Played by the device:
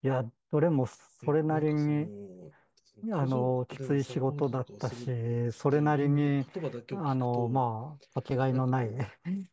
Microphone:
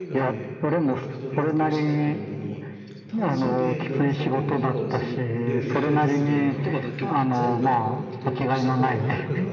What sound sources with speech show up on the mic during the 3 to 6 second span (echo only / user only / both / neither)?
both